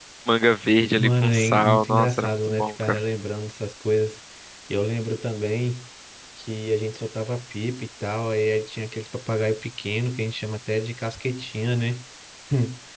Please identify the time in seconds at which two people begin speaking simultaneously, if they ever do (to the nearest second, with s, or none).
1 s